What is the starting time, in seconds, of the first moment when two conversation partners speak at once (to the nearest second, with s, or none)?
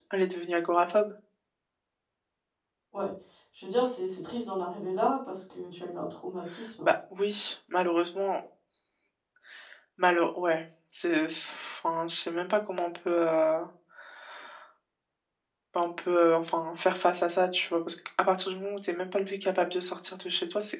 none